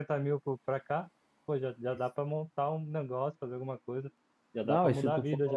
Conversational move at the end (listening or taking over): taking over